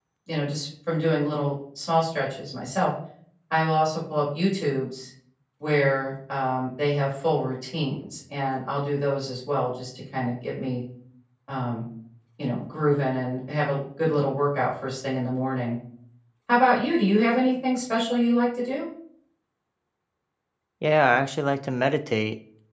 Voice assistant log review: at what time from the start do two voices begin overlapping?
none

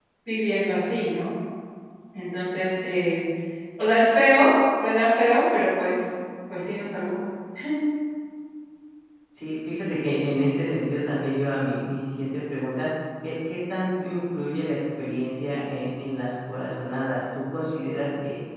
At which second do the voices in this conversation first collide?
none

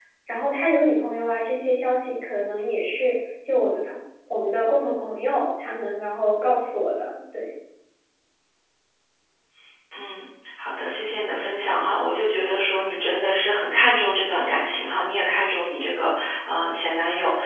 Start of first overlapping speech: none

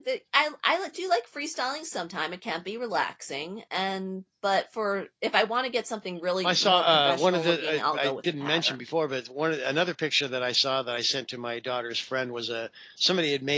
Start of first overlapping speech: 6.4 s

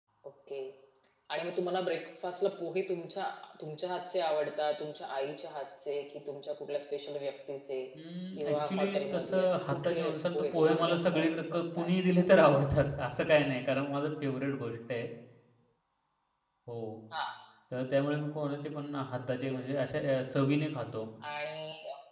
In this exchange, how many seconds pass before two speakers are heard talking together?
8.4 s

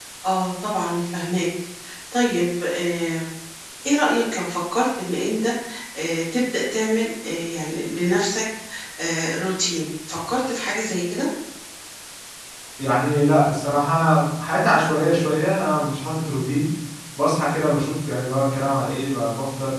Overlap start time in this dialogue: none

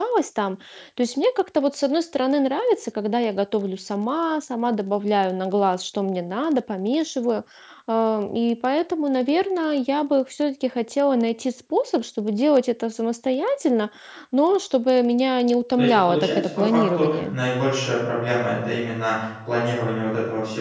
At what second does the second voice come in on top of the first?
15.8 s

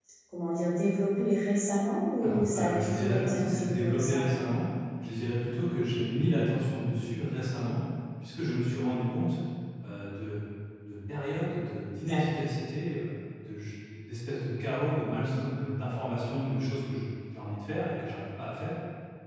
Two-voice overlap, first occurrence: 2.2 s

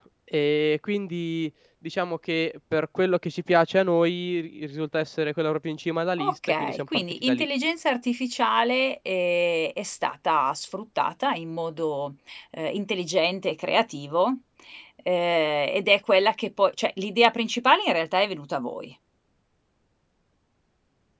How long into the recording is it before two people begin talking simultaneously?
6.2 s

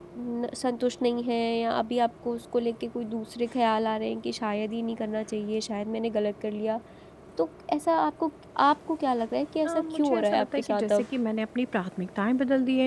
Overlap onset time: 9.7 s

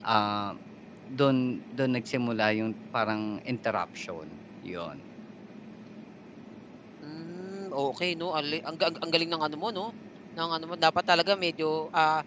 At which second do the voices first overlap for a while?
none

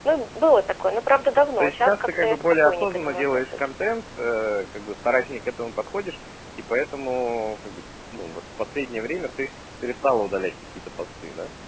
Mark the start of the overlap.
1.6 s

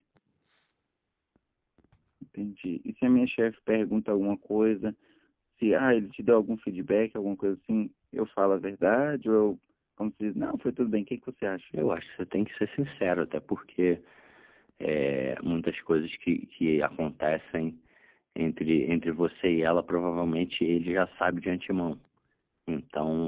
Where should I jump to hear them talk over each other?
none

